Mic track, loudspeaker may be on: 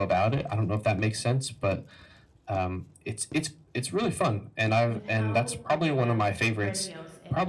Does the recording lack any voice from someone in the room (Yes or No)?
No